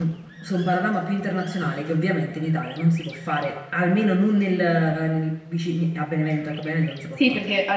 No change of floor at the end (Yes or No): No